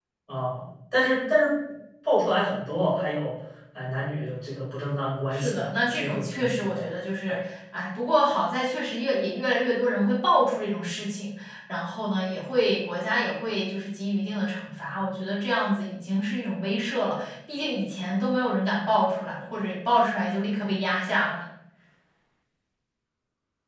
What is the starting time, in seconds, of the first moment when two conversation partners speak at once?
5.3 s

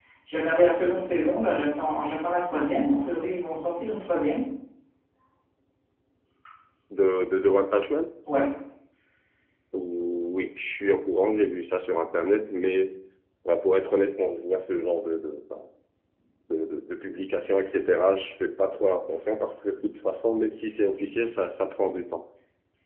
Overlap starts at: none

